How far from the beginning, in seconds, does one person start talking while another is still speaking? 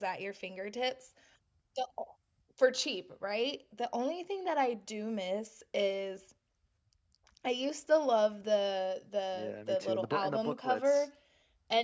9.3 s

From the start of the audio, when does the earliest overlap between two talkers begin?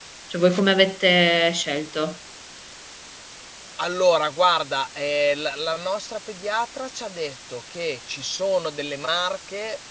none

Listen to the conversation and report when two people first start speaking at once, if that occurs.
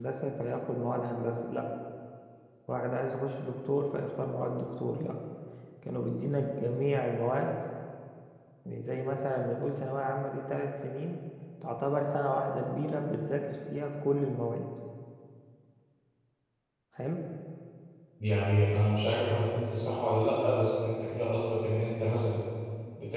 none

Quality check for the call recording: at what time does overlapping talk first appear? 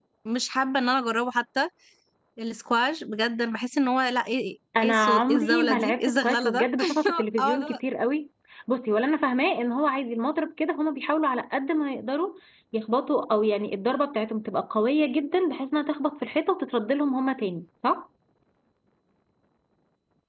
4.8 s

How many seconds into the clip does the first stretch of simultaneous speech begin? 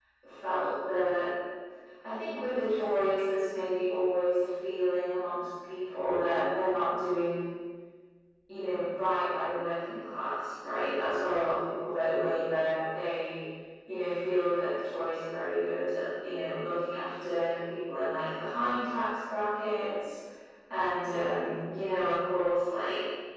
none

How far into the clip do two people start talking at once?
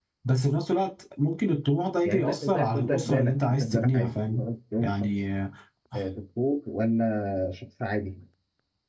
2.0 s

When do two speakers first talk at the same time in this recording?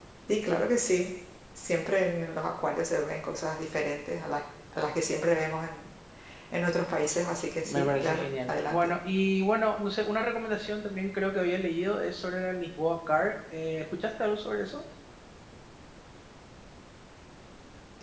7.6 s

